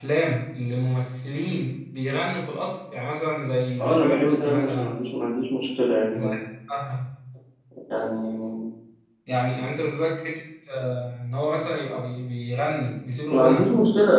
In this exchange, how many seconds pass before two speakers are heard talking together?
3.8 s

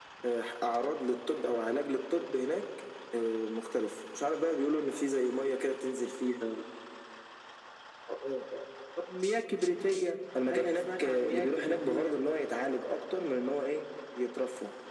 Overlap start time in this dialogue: 10.3 s

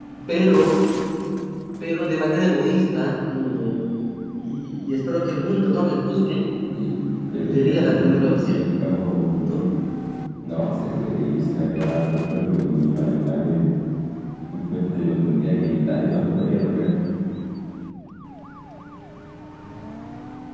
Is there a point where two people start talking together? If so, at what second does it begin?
7.3 s

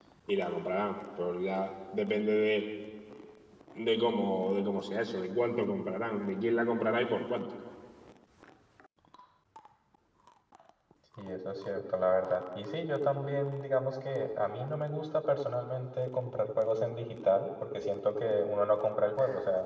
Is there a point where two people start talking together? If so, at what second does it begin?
none

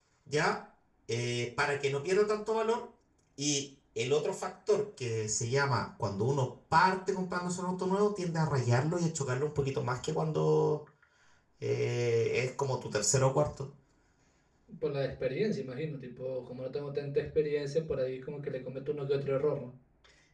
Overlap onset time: none

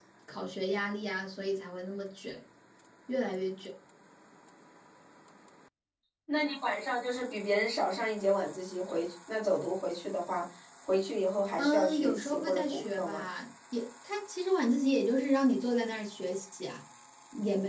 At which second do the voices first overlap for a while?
11.6 s

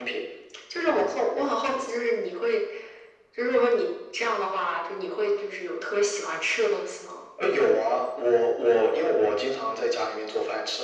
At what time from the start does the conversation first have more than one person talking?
none

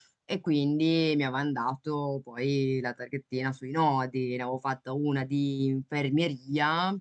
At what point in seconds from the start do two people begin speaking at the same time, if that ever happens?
none

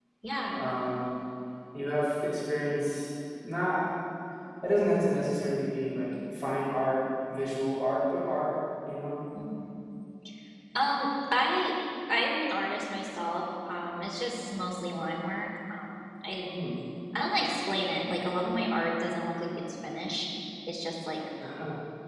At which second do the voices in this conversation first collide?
none

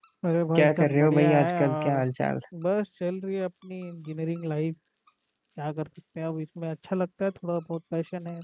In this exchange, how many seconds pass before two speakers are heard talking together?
0.6 s

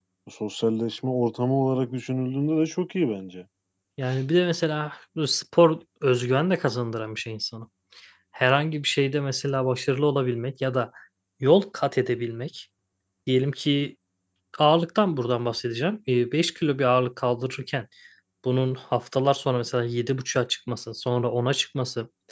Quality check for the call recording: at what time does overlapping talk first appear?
none

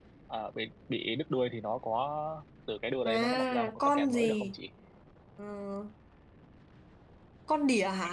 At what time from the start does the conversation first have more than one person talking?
3.0 s

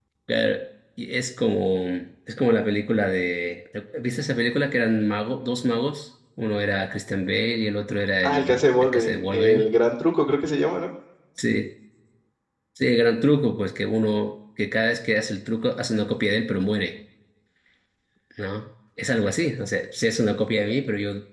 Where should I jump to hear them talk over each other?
8.2 s

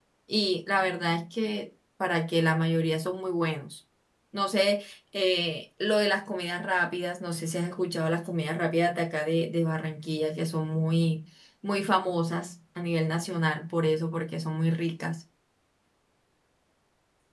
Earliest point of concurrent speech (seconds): none

